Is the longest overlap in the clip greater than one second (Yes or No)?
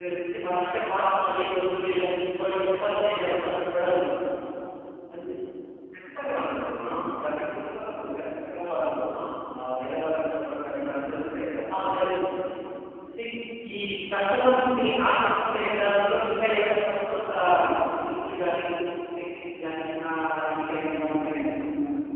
No